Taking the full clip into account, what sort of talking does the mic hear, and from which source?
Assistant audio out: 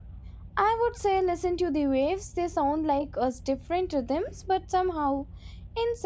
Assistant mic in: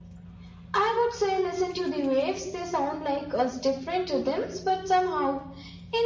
echo only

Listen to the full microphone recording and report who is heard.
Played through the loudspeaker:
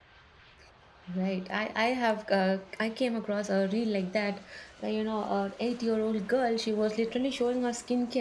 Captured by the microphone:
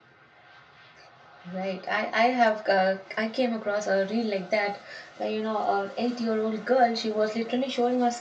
echo only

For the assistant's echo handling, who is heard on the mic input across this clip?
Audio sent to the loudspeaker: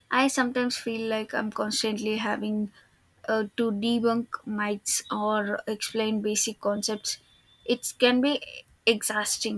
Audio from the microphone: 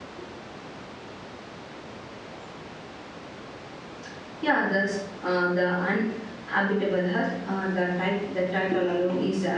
user only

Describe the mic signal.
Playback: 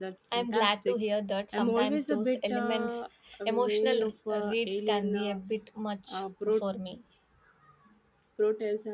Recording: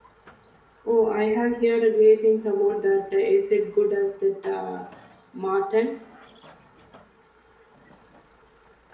user only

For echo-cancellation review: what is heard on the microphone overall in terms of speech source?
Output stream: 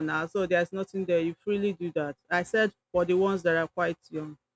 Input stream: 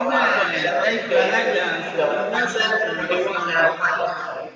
both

